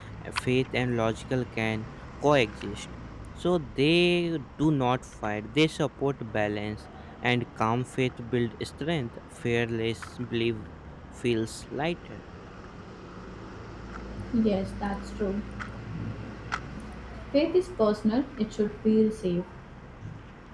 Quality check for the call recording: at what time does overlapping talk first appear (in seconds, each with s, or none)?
none